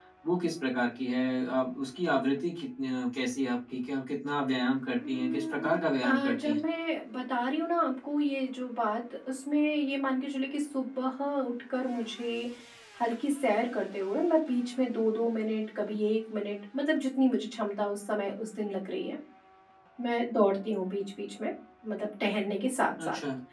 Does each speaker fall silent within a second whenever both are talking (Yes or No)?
No